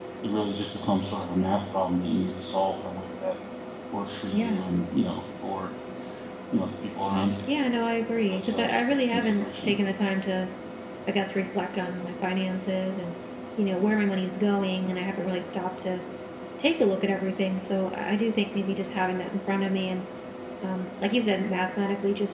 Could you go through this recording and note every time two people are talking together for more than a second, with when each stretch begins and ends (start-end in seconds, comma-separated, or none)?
8.3-9.7